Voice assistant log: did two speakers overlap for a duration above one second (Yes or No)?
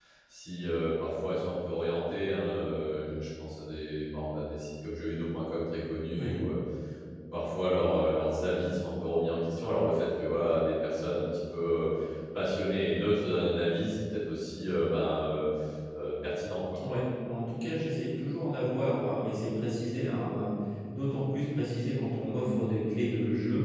No